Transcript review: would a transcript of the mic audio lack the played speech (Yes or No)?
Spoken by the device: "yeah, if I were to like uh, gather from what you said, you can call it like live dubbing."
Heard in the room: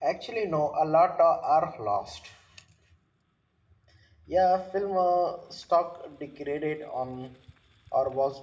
Yes